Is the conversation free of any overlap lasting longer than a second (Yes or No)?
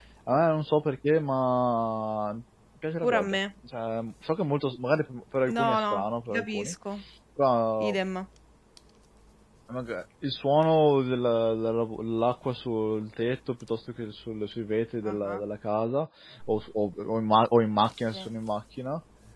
No